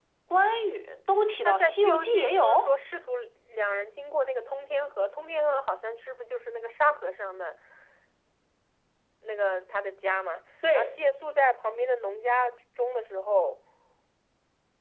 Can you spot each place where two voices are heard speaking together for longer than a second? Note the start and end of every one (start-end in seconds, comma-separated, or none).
1.4-2.8